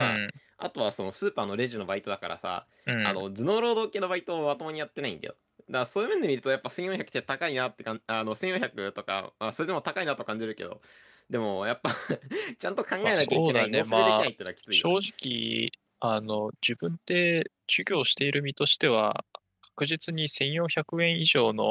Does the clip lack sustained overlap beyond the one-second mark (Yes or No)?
No